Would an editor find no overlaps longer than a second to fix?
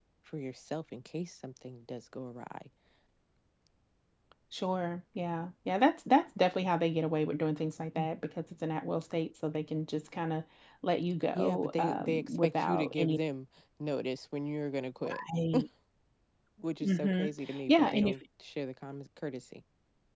No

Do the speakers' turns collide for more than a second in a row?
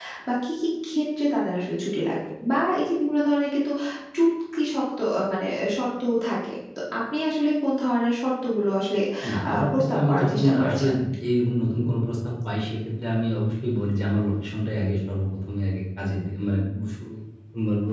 Yes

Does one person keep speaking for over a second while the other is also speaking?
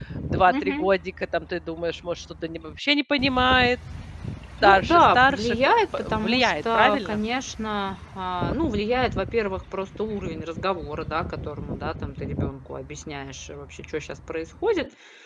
Yes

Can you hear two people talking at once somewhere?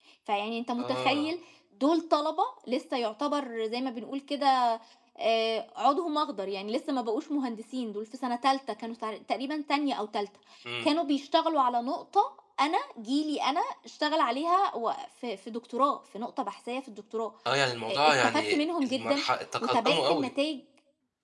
Yes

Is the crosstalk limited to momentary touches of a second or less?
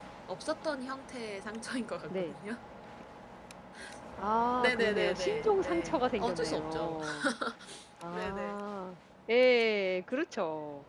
No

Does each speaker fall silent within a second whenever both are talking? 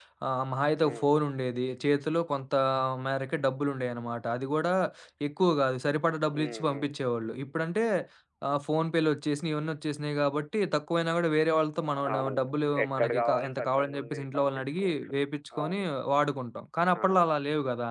No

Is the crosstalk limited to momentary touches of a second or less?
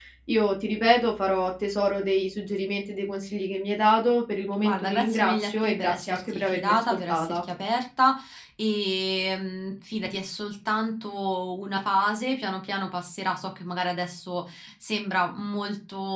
No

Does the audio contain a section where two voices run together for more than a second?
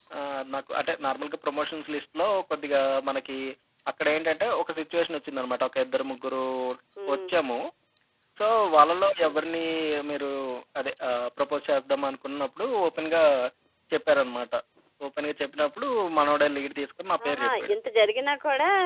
No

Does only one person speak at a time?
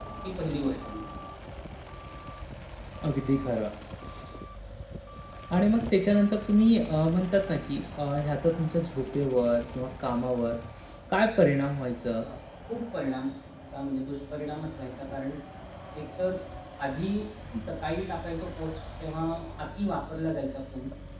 Yes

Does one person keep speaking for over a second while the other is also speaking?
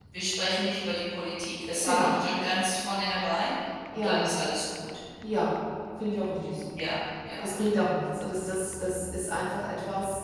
No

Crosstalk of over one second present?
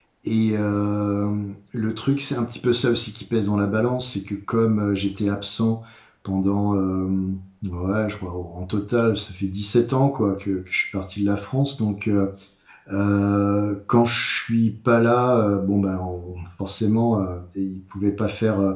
No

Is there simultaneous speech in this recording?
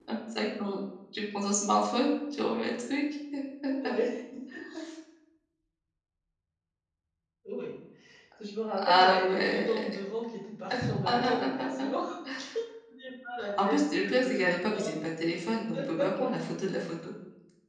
Yes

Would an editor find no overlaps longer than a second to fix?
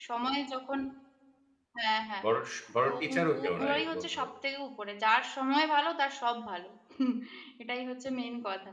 No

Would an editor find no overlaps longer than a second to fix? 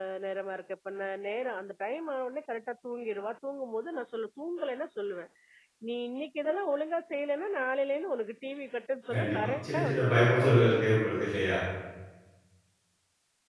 No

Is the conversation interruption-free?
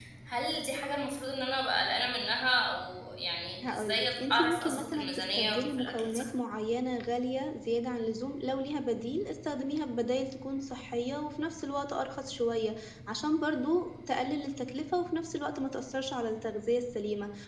No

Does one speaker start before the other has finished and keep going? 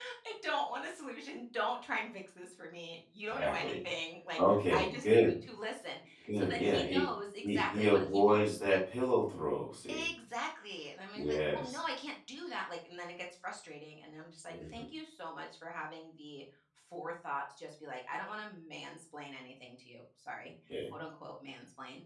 Yes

